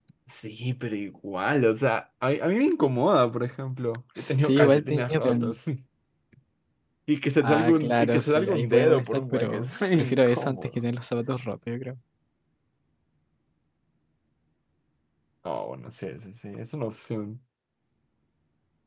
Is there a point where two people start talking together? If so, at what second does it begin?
4 s

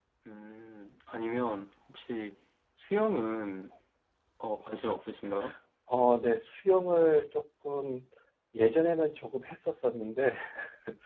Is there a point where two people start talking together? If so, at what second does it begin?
none

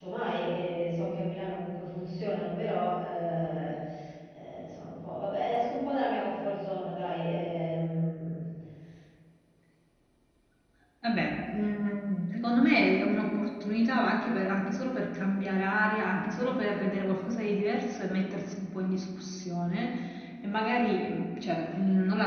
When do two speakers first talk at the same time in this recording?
none

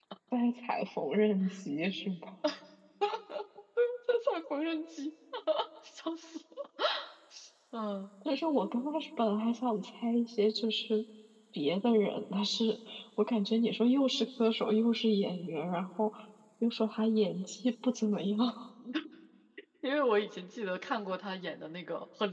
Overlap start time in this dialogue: none

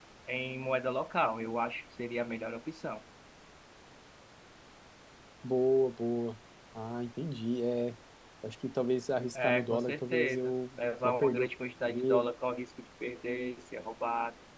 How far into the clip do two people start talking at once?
9 s

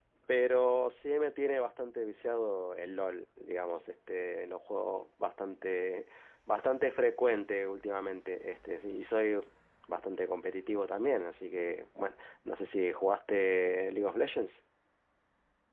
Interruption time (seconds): none

